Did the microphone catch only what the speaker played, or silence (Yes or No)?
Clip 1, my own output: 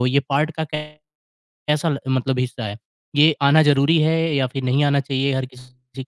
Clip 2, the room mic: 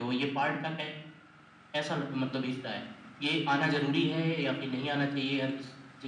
Yes